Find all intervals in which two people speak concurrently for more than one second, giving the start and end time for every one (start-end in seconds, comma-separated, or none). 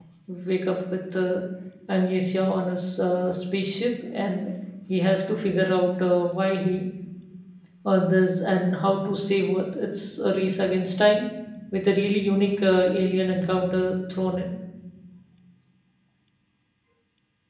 none